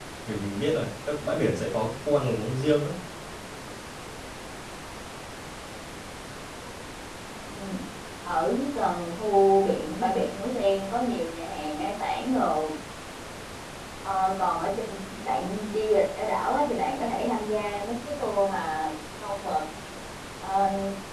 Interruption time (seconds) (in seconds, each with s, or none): none